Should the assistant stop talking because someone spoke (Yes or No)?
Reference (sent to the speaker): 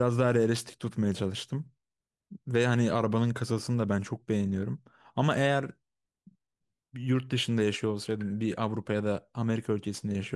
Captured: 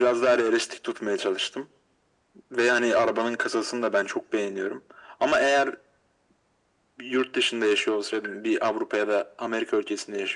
No